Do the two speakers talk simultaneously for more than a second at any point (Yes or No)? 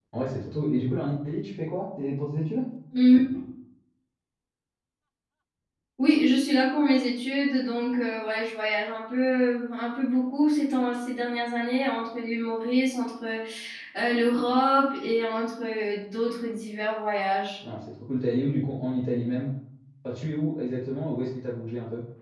No